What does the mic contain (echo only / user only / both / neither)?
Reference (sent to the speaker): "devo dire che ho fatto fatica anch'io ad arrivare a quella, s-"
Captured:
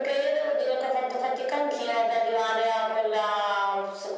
echo only